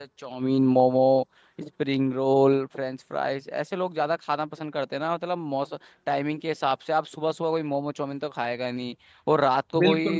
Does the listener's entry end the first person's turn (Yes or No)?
No